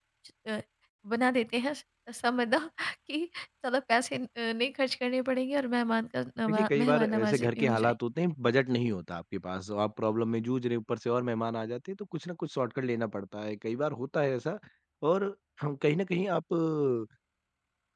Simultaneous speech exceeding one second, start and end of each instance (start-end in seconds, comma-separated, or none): 6.5-7.9